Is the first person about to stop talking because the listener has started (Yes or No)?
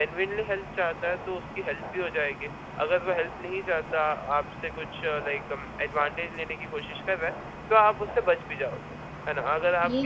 No